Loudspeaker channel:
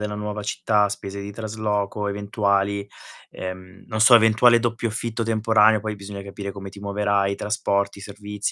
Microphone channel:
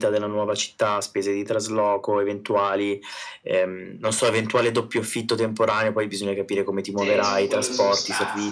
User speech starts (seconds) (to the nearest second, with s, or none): 7 s